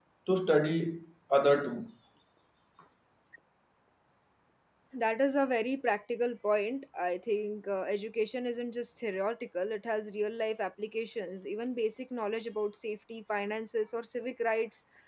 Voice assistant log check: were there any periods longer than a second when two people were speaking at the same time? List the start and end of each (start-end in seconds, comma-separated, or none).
none